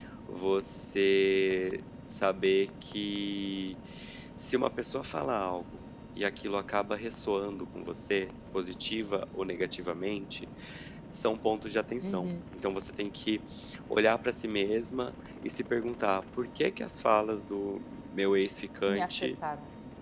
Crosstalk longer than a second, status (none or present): none